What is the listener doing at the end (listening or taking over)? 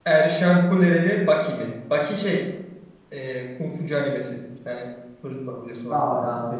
taking over